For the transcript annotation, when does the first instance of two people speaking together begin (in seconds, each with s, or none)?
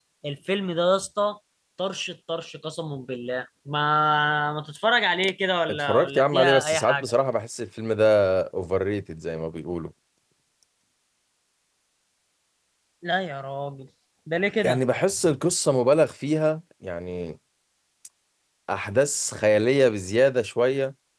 5.7 s